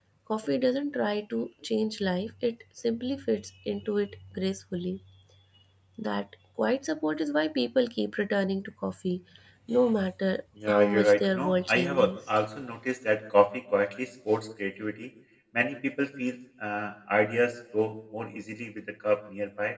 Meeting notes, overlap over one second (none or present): present